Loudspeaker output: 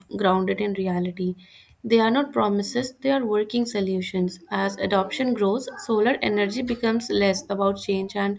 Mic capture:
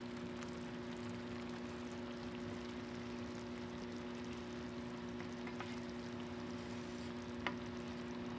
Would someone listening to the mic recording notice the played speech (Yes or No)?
No